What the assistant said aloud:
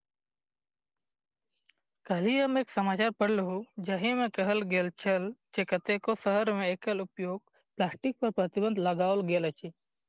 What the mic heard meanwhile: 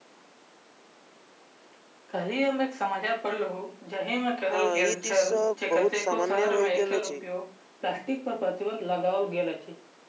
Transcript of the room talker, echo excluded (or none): हँ ई दृश्य बहुत सामान्य होय गेल अछि